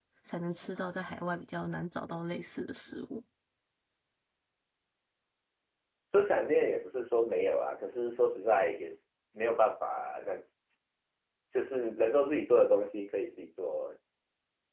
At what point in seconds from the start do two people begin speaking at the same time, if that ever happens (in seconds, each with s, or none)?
none